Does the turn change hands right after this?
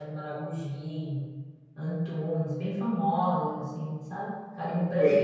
Yes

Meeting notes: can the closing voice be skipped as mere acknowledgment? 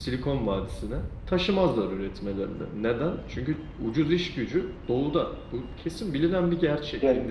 No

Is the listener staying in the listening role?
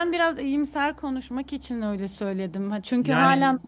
Yes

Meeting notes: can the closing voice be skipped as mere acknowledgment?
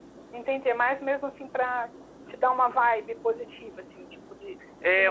No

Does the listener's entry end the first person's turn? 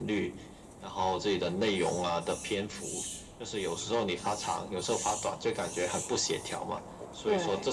No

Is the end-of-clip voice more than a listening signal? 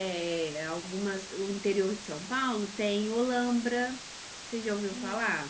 Yes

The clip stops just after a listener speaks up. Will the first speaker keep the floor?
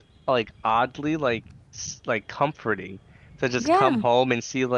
Yes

